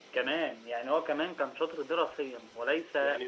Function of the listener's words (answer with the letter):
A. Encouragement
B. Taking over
B